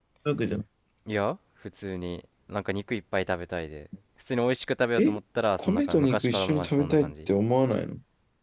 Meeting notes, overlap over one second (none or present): present